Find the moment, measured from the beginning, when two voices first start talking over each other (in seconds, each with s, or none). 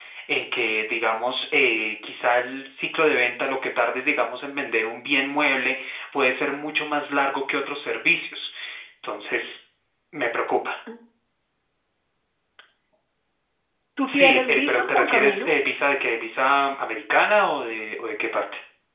14.1 s